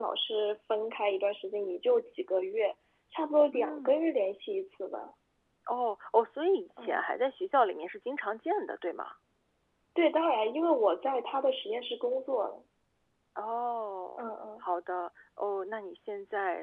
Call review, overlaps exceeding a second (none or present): none